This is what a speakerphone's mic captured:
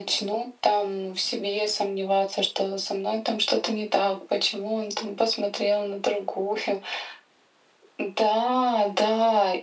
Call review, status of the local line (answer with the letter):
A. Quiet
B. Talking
A